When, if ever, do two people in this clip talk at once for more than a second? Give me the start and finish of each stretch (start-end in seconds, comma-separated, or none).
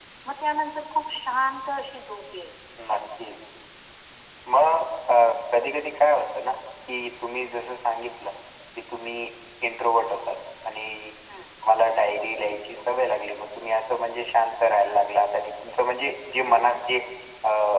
none